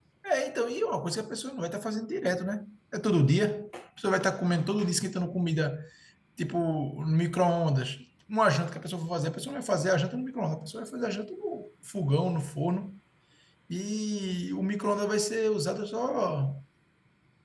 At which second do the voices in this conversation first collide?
none

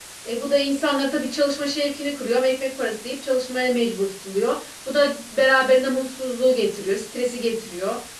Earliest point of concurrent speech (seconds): none

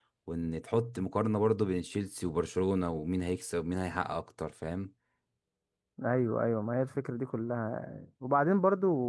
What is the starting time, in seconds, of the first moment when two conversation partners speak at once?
none

